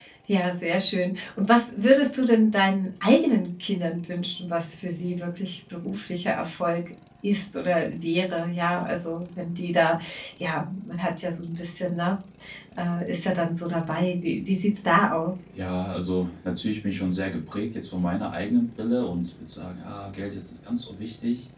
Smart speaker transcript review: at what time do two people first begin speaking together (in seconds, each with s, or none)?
none